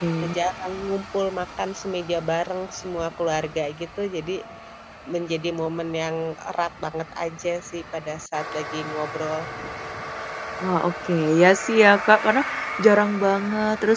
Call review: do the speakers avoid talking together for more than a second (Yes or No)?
Yes